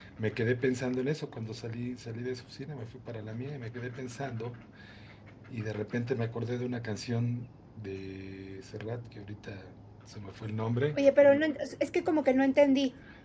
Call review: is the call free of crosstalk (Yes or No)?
Yes